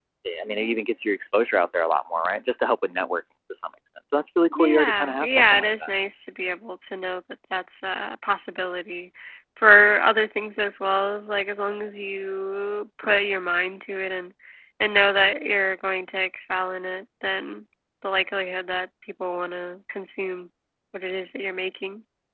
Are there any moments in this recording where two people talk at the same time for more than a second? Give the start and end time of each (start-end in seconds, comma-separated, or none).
4.5-5.9